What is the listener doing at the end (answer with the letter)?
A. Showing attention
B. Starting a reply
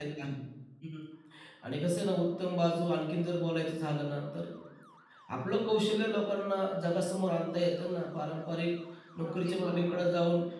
A